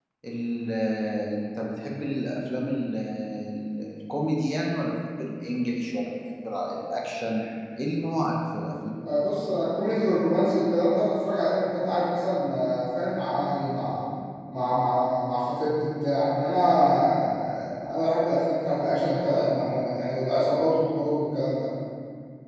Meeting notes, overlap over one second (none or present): none